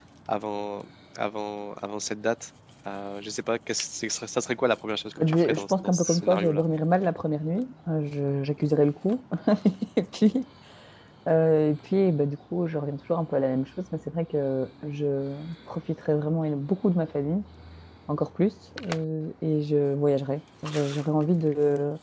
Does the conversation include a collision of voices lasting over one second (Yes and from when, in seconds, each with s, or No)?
Yes, from 5.2 s